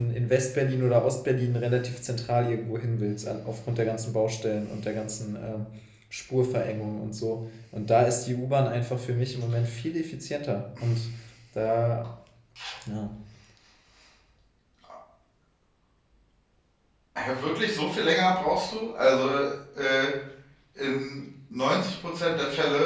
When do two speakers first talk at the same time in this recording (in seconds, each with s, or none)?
none